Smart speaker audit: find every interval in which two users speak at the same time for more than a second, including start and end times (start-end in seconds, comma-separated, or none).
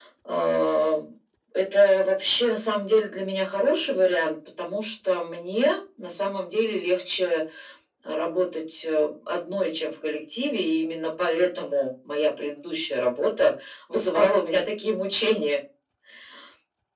none